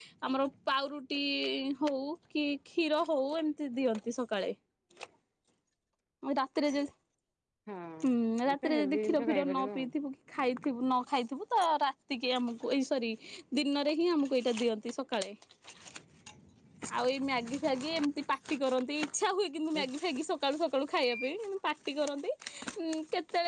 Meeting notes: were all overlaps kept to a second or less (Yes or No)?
No